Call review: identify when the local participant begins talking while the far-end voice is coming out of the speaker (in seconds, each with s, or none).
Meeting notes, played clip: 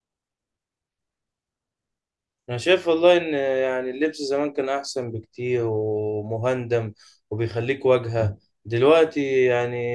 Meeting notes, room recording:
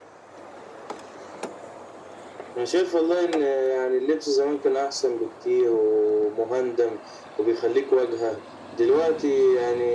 none